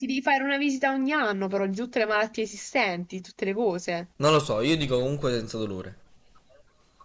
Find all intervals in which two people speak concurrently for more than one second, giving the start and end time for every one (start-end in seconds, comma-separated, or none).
none